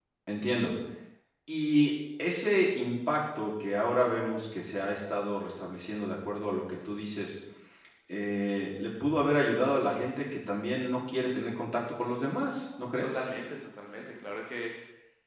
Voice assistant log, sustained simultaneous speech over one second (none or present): none